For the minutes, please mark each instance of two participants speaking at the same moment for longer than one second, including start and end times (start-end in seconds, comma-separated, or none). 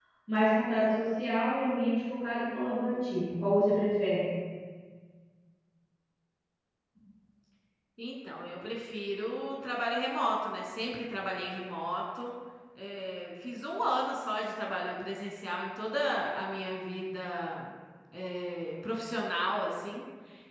none